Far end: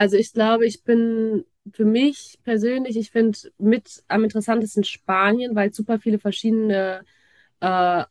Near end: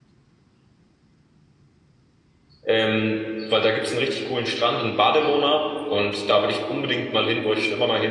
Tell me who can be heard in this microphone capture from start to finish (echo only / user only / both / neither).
user only